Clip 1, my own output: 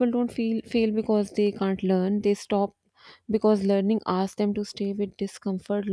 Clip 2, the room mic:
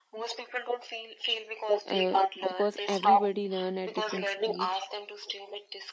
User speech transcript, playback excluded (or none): uh, because everybody learn at different speed